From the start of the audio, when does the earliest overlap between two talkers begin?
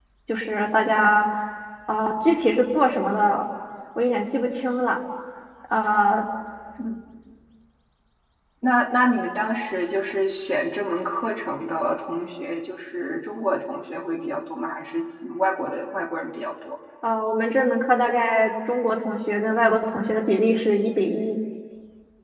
none

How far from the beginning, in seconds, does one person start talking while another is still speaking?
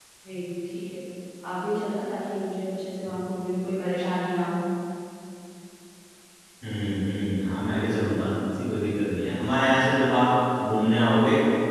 none

